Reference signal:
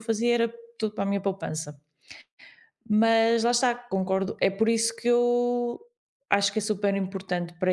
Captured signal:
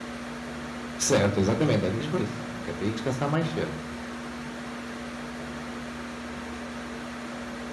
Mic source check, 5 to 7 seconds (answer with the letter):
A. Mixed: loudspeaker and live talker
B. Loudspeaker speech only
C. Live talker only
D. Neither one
D